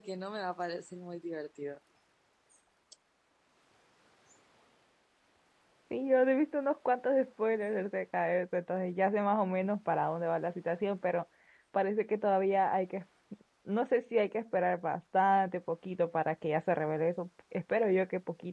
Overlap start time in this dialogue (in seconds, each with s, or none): none